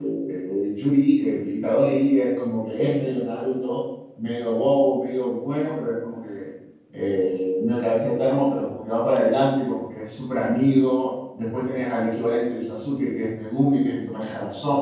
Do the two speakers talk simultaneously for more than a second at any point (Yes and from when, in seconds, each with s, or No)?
No